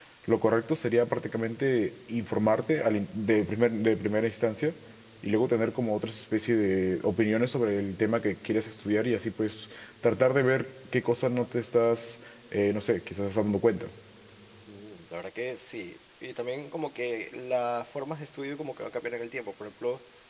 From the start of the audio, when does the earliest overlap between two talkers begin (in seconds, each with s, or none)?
none